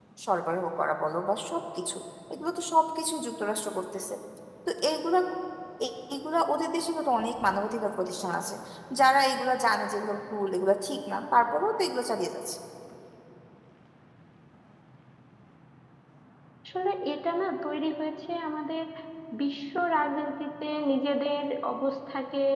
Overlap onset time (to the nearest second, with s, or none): none